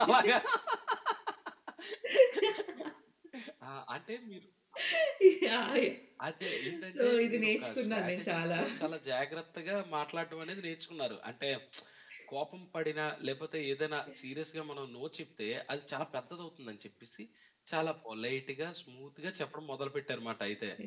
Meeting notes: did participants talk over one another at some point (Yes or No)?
Yes